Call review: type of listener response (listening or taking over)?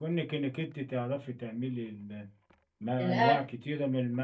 listening